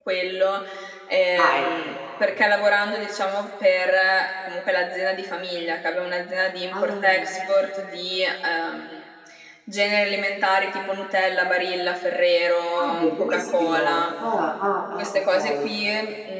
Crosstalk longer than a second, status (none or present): present